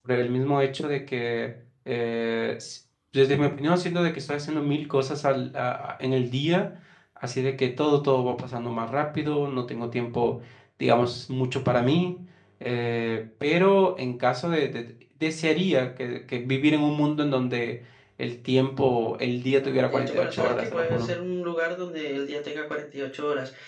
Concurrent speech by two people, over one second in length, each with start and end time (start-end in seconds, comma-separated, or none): 19.6-21.1